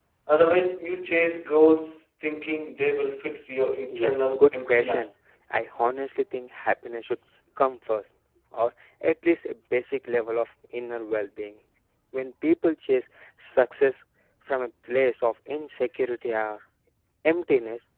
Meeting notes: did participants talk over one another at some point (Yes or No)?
Yes